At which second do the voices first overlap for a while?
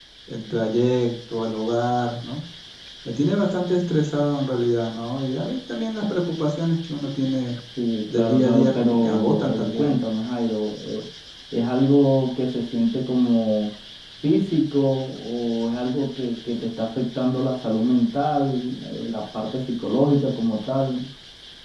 8.1 s

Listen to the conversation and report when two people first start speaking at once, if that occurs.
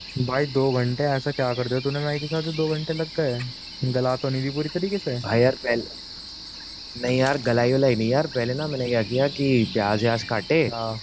none

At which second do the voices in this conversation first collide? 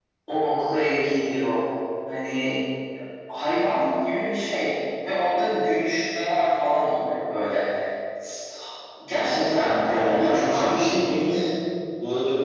9.2 s

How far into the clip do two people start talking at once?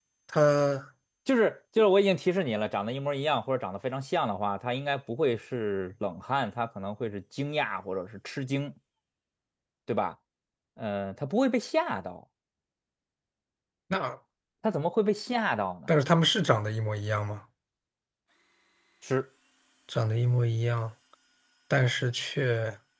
none

